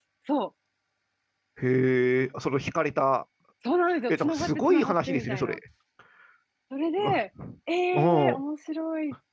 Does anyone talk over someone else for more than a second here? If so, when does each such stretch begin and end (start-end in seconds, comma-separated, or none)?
4.1-5.6